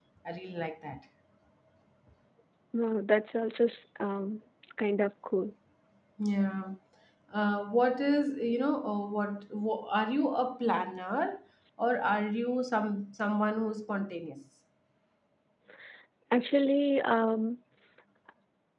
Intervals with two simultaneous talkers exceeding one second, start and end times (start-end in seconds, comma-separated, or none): none